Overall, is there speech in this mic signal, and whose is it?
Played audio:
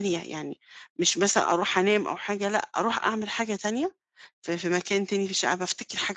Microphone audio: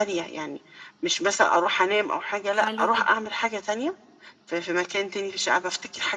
both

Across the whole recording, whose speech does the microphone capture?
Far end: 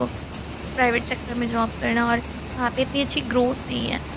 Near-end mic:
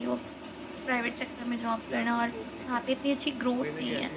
both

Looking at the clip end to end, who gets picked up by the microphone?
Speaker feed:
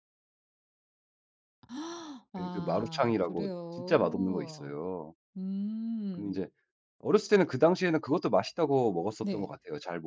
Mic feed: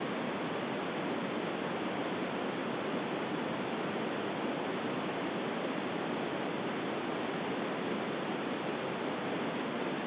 neither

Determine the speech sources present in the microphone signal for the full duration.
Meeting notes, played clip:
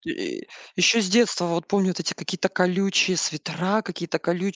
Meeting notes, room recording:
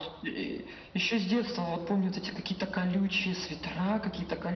echo only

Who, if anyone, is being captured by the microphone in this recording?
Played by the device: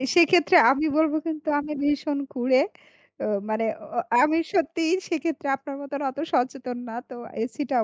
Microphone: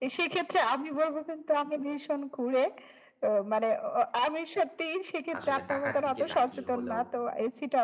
both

